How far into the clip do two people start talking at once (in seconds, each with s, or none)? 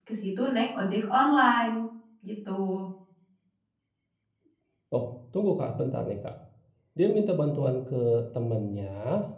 none